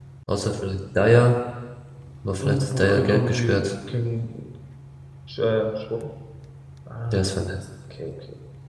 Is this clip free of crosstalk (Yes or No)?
No